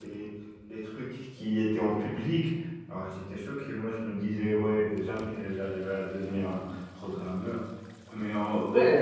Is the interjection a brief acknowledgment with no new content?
No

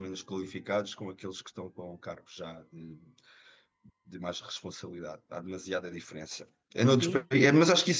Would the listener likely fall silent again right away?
Yes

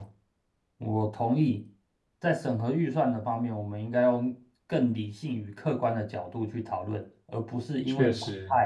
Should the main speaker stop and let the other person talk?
No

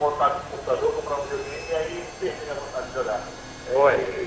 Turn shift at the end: Yes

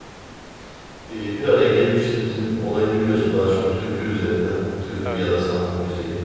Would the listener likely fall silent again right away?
Yes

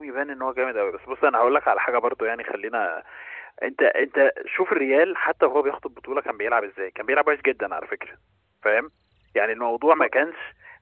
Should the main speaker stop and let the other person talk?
No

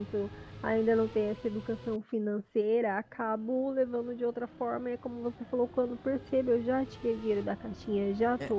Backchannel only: Yes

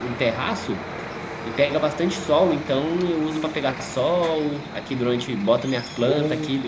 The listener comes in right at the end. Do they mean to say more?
No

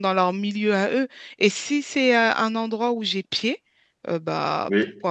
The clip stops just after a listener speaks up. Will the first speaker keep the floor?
Yes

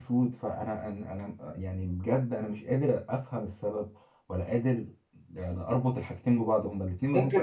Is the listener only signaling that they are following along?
No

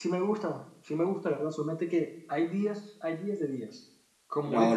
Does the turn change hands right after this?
No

